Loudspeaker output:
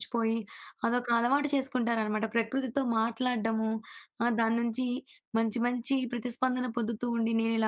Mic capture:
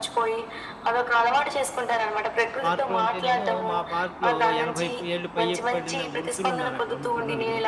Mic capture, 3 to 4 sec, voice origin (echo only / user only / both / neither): both